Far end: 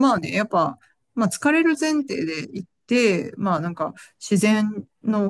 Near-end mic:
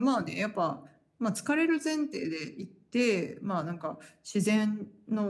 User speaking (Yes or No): No